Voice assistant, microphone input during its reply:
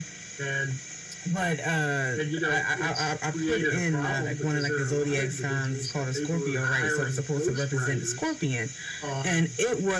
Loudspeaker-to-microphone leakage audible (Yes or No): Yes